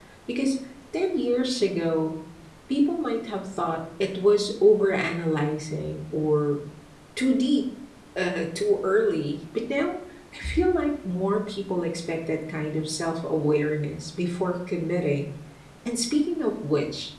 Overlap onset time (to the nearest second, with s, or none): none